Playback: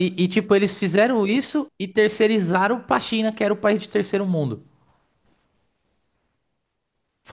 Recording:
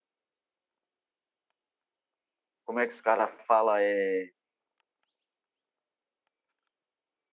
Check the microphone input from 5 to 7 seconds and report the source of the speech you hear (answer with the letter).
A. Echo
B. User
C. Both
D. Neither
D